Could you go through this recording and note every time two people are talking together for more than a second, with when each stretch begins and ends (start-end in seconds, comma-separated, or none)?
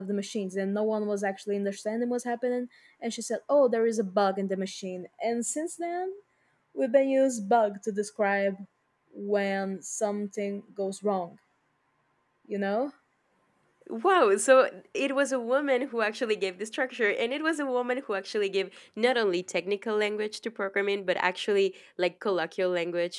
none